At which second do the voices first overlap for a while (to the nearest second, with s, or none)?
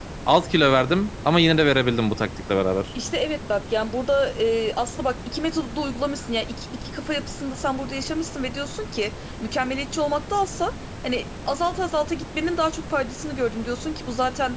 none